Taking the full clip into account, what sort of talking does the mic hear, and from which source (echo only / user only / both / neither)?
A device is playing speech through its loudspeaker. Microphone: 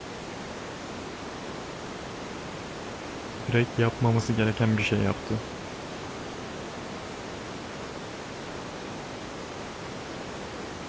user only